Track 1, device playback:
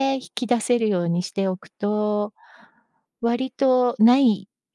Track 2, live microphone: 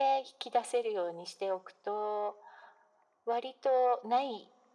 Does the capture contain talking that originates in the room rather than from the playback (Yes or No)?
No